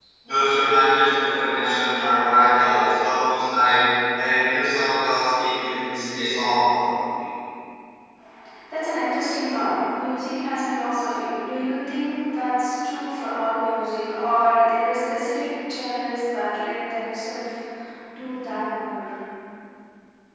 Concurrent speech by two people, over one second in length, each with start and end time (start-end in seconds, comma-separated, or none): none